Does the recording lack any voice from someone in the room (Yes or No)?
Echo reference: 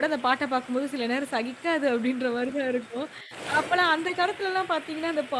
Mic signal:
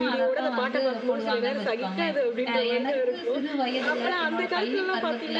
No